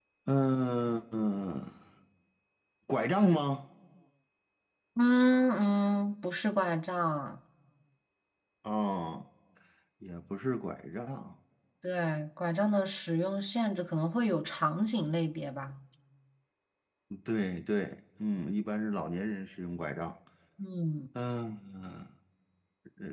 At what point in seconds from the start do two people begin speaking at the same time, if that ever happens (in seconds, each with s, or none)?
none